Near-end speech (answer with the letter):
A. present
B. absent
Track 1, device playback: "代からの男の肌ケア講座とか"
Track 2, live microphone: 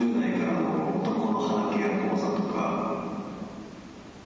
B